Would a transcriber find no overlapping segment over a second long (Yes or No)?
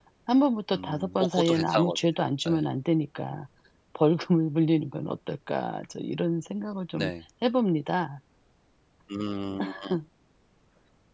No